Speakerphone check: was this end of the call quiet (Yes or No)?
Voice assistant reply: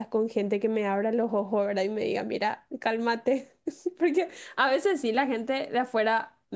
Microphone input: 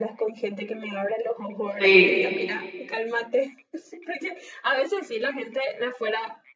No